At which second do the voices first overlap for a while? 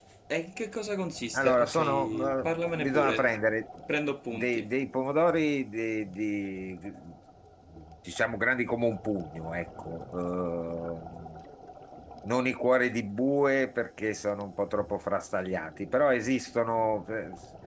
1.3 s

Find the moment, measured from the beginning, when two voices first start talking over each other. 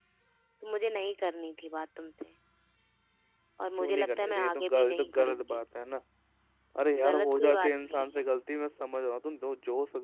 3.8 s

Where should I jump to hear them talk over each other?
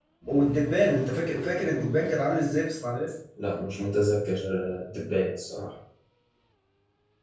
none

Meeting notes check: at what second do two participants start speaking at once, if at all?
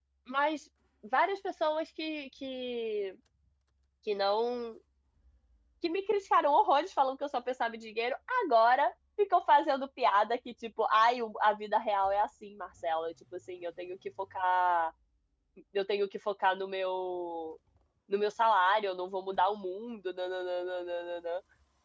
none

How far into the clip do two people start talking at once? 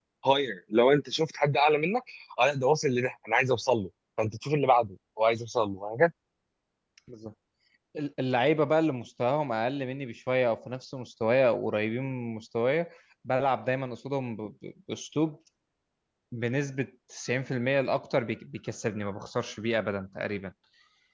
none

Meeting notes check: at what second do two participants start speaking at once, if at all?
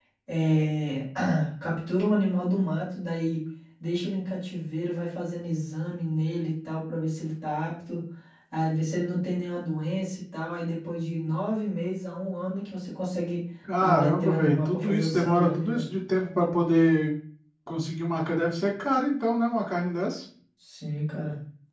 13.6 s

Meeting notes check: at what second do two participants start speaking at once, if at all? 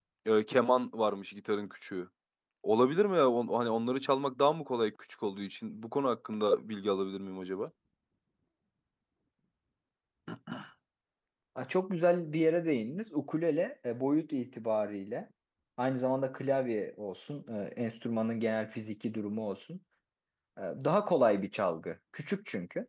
none

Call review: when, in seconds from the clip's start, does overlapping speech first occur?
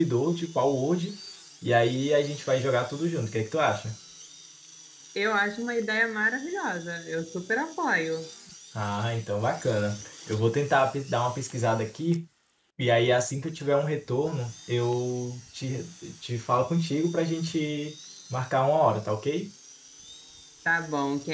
none

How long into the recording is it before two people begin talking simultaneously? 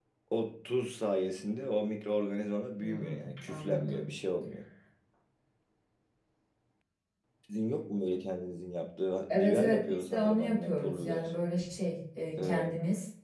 2.8 s

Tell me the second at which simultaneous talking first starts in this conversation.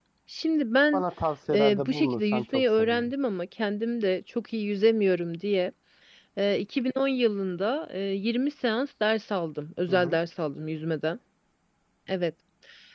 1.5 s

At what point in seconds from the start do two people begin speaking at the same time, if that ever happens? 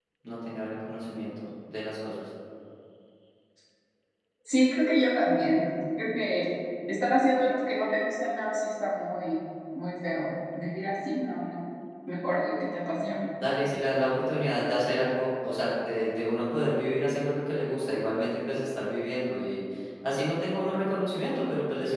none

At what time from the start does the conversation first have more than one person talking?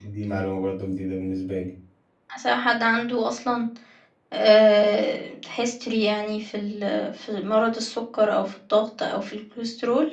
none

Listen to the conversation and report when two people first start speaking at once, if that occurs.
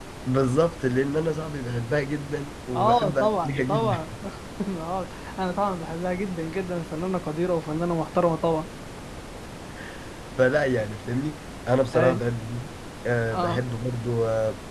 2.7 s

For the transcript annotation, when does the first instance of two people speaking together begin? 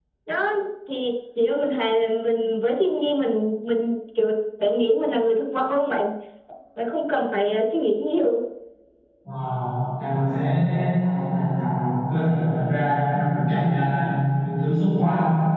none

